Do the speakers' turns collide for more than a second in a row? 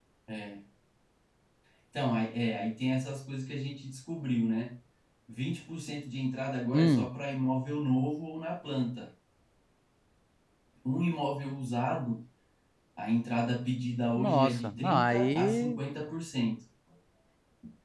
Yes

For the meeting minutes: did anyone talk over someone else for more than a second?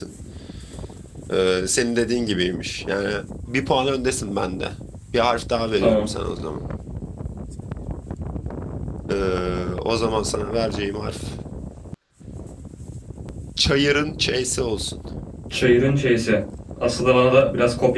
No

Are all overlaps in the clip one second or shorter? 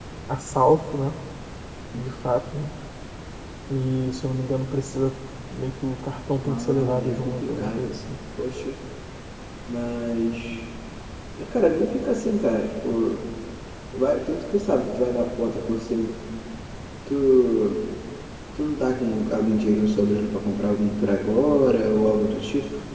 No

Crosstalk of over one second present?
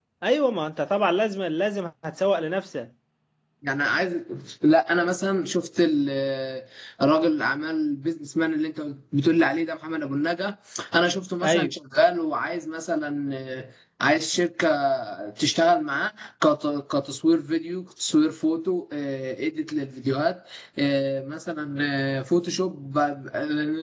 No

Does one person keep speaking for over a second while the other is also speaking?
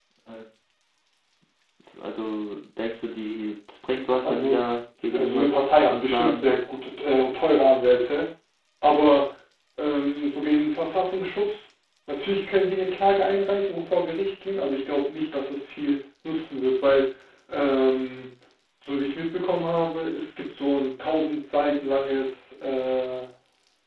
Yes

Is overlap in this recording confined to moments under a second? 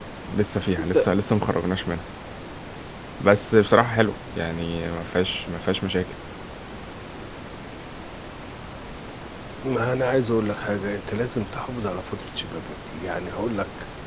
Yes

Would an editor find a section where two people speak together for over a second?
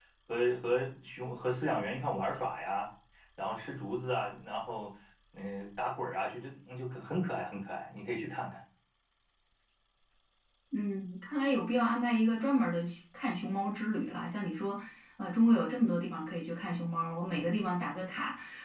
No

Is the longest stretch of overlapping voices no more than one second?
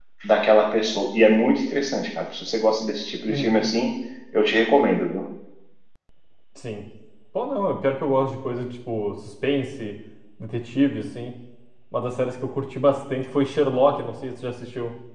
Yes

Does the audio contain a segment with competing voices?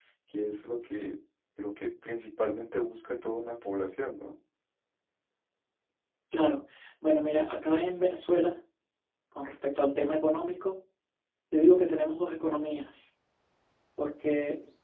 No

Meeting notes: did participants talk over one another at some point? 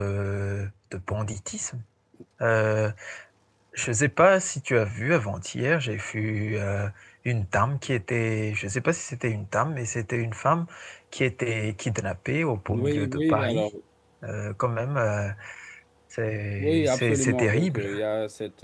Yes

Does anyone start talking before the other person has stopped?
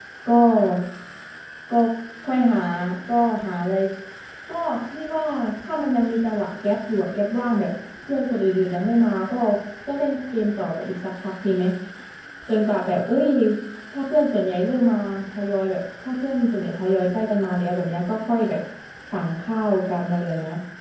No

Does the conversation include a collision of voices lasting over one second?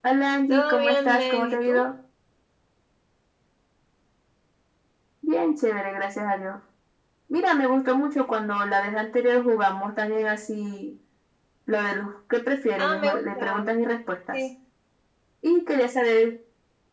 Yes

